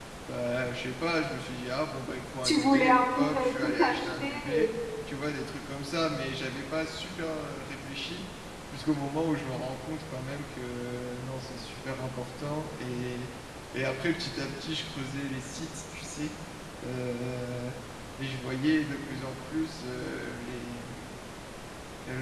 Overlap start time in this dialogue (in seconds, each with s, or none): 2.4 s